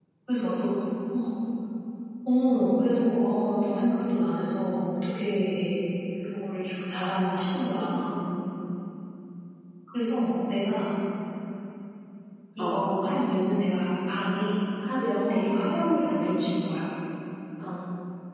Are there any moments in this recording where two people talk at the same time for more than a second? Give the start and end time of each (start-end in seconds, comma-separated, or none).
none